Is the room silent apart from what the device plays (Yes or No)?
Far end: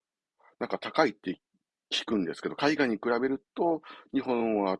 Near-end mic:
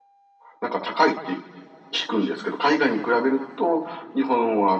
Yes